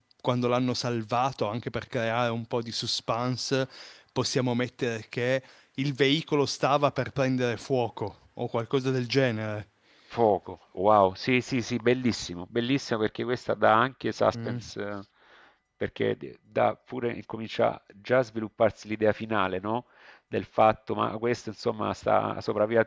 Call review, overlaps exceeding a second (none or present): none